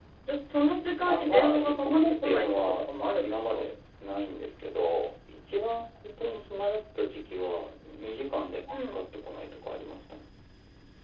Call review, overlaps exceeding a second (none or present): present